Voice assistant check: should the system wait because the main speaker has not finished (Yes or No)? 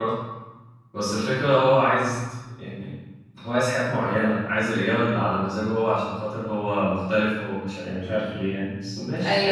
No